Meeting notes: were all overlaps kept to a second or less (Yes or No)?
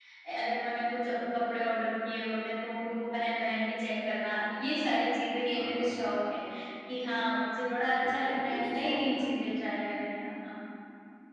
No